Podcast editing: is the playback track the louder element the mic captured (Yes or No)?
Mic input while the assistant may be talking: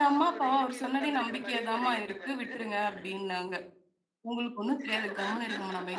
No